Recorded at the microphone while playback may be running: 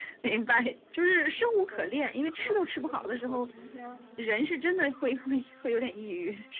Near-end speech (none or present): present